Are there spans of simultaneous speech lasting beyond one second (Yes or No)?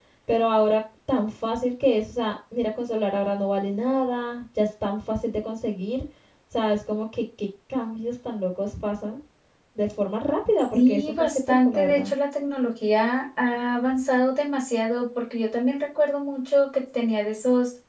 Yes